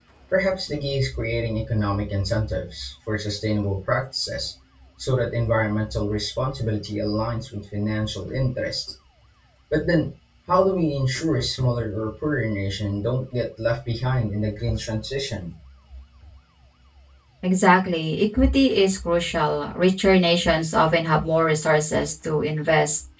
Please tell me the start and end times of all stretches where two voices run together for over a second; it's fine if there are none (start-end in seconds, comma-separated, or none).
none